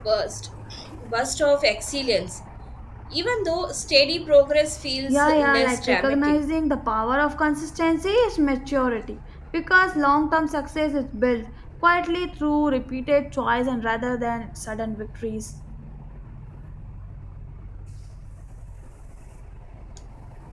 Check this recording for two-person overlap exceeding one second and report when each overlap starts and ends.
5.1-6.4

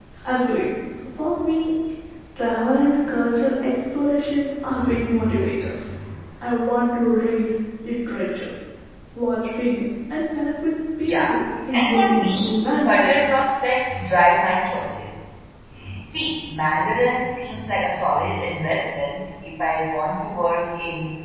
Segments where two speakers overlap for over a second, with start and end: 11.7-13.1

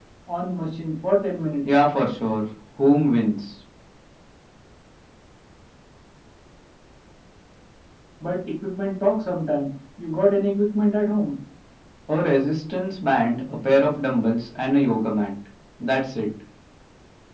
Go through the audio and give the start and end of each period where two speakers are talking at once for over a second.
none

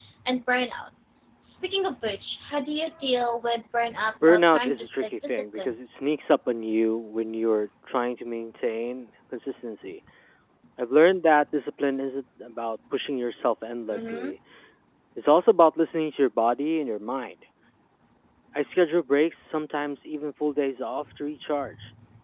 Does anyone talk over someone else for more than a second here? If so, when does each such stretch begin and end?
4.3-5.7

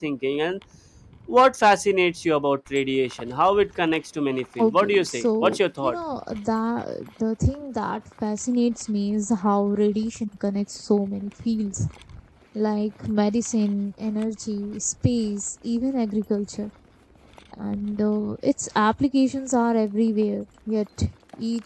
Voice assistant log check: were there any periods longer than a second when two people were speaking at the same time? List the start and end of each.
4.6-6.0

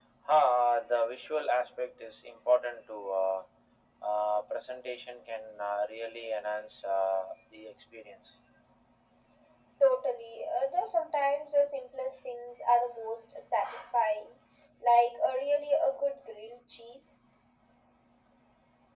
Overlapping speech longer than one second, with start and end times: none

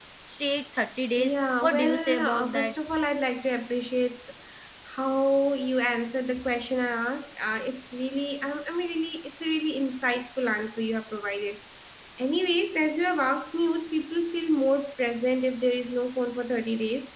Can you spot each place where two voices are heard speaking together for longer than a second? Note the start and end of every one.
1.2-2.8

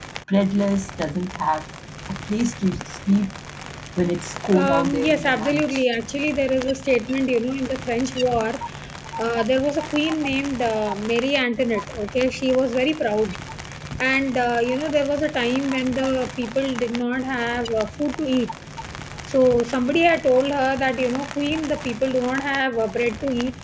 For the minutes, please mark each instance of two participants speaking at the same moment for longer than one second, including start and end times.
4.5-5.8

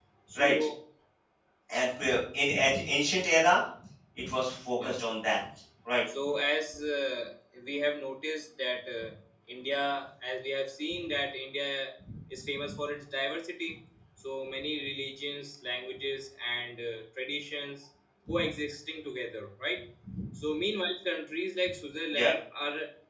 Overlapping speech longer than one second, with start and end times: none

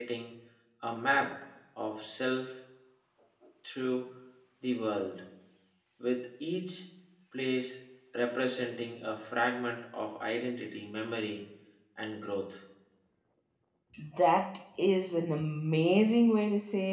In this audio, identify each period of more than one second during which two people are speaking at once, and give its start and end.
none

